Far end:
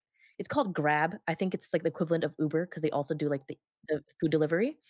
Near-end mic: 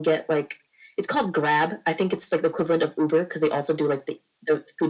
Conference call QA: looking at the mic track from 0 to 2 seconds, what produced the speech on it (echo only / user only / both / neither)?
echo only